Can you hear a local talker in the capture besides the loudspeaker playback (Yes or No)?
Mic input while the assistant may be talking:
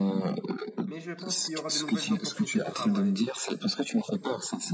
Yes